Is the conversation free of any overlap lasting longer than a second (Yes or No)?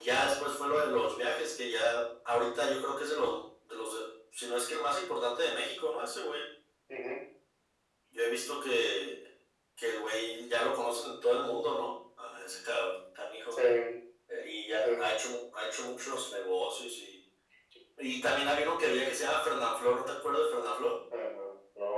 Yes